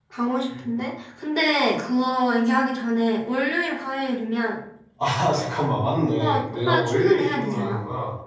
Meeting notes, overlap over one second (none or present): present